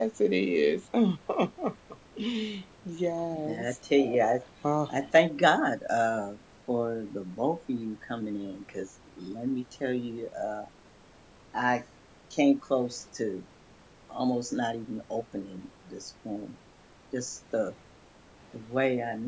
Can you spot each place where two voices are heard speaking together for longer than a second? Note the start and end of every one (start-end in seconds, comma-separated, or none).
none